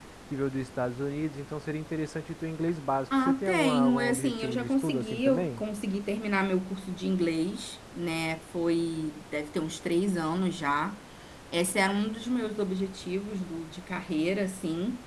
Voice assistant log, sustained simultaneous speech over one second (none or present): present